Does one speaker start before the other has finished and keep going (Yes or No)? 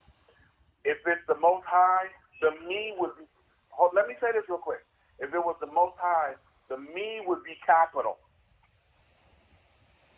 No